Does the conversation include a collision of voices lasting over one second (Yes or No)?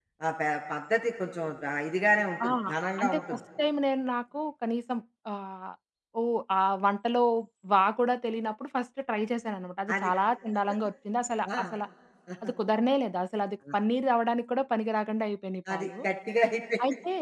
No